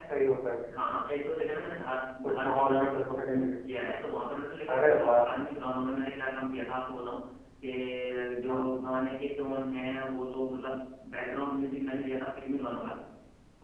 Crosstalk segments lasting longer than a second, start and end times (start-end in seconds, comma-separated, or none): 2.3-3.5